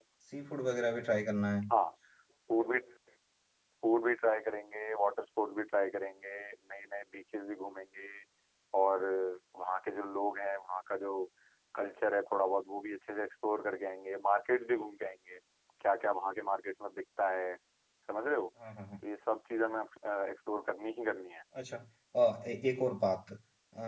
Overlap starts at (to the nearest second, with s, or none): none